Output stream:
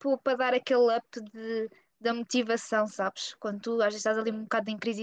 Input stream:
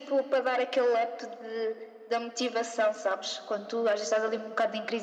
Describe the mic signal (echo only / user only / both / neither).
echo only